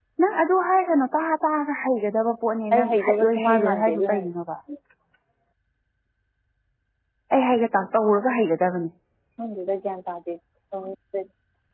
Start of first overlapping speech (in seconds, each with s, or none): 2.7 s